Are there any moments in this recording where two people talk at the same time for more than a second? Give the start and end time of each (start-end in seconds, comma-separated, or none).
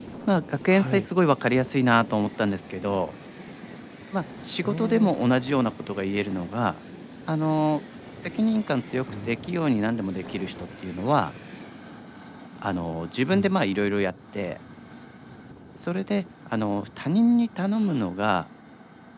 none